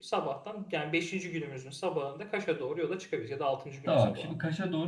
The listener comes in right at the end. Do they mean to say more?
Yes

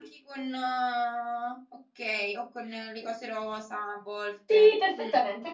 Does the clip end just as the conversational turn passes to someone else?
Yes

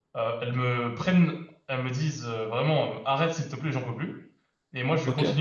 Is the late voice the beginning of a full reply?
No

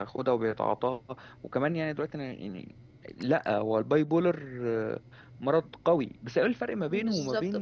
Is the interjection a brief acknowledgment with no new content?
No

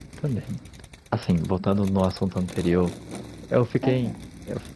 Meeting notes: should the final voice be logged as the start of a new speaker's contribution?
No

